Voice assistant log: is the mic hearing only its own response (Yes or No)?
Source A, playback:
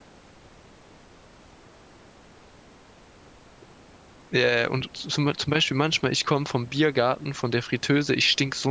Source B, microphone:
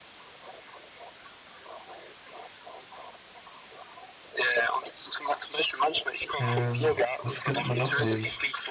No